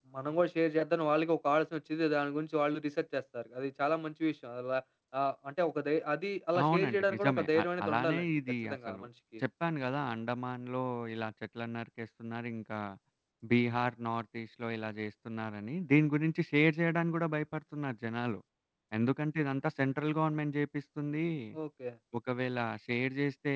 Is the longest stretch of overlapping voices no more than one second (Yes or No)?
No